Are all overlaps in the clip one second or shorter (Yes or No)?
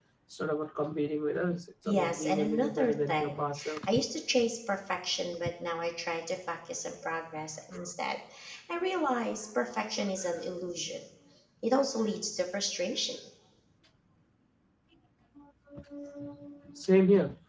No